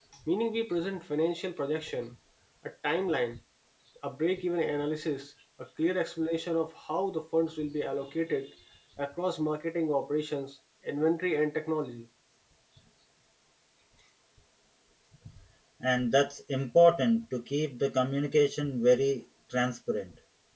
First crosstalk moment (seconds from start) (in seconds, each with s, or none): none